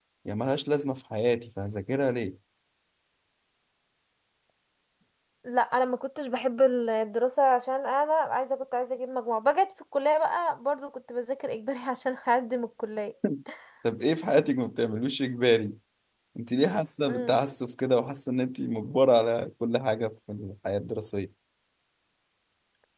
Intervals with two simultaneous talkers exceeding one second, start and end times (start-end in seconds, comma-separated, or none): none